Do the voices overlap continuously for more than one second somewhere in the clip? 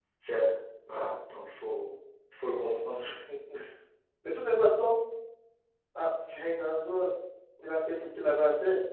No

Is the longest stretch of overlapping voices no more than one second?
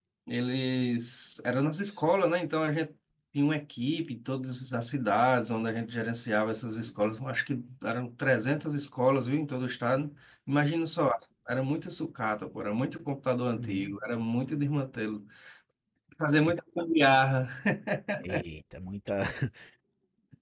Yes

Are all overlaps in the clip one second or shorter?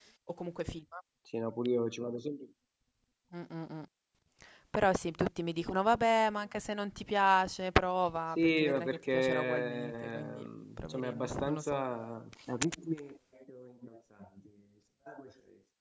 No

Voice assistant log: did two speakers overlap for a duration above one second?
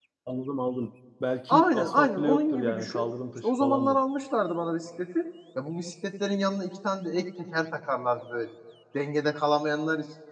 Yes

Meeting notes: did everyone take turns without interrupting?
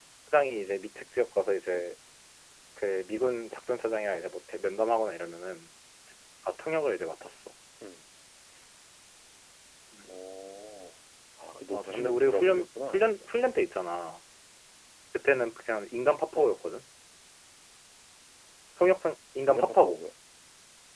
No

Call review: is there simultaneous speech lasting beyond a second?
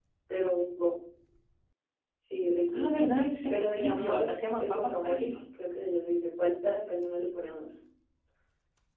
Yes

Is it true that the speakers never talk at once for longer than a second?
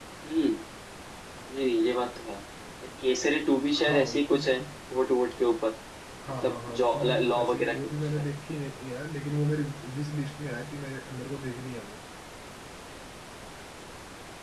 No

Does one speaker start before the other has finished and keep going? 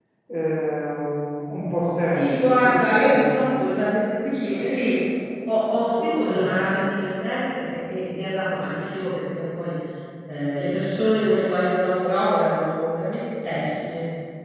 Yes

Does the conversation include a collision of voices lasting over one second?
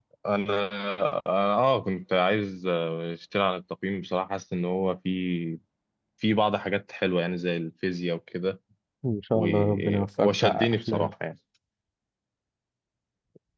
Yes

